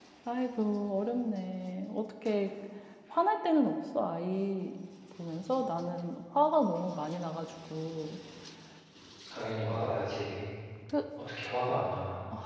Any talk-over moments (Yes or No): No